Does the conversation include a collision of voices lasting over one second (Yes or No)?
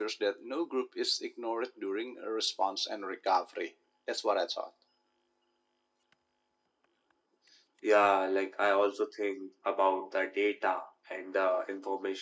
No